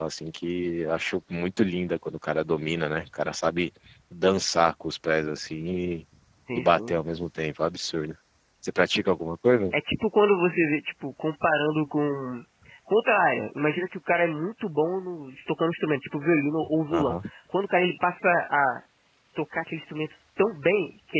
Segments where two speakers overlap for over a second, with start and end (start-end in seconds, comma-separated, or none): none